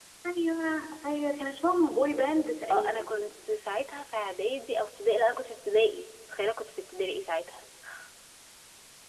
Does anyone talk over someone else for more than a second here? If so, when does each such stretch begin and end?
none

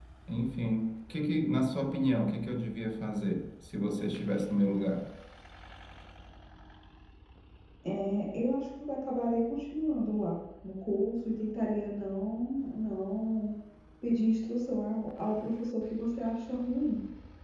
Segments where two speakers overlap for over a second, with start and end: none

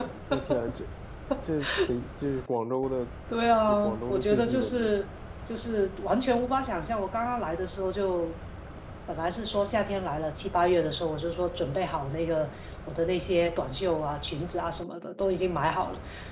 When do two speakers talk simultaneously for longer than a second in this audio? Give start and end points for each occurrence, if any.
3.7-4.9

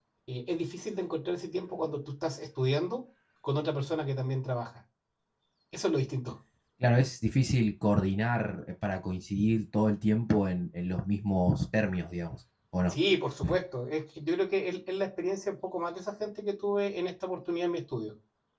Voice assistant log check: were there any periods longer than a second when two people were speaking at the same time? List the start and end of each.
none

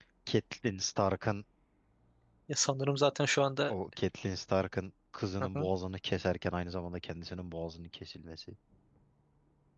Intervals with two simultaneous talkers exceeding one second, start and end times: none

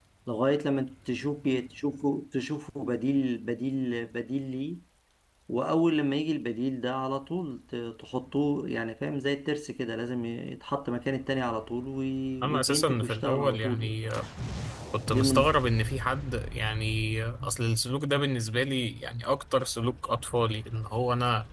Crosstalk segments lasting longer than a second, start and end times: 12.4-13.9

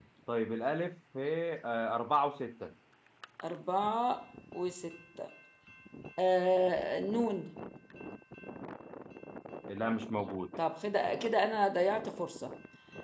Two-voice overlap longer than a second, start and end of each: none

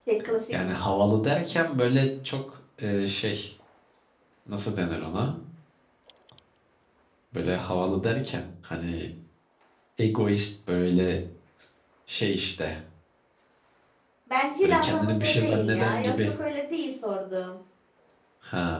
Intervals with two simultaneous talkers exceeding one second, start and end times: 14.6-16.3

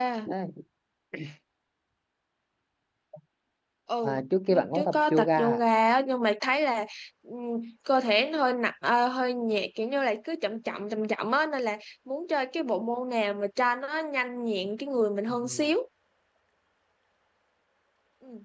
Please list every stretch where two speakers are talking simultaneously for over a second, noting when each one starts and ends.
4.0-5.6

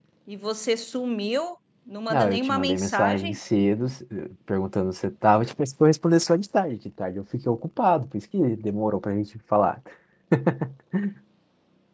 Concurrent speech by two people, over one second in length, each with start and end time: 2.1-3.4

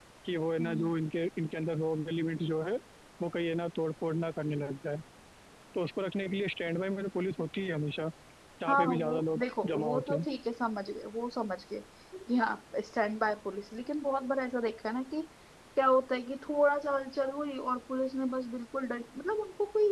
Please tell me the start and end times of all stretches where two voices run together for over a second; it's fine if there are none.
8.7-10.2

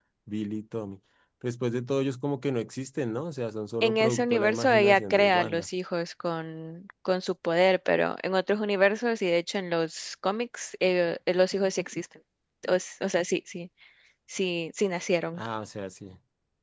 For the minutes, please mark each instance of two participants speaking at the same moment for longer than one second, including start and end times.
3.8-5.7

